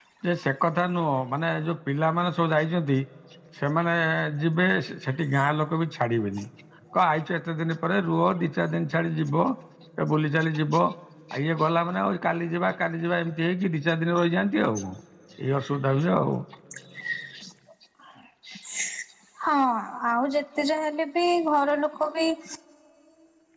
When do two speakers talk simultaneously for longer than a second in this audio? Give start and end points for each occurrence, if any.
none

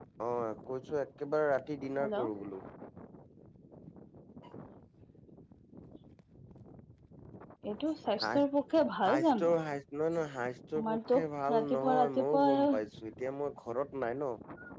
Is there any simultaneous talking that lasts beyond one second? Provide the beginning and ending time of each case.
11.6-12.8

